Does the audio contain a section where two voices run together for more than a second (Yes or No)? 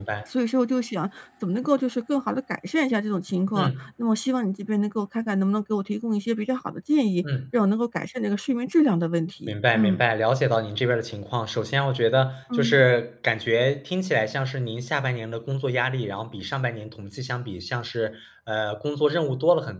No